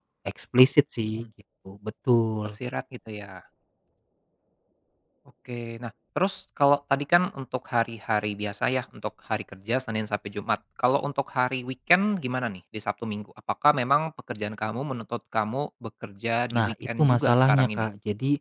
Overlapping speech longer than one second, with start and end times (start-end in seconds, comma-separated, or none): 16.5-17.9